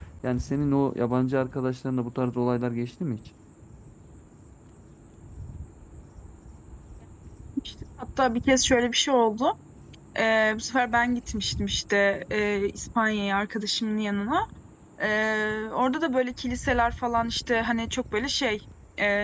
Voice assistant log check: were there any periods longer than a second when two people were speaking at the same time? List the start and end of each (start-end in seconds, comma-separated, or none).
none